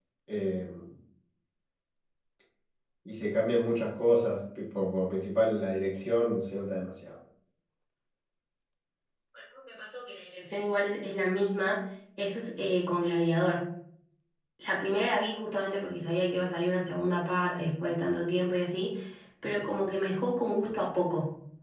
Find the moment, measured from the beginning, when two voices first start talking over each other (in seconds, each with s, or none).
none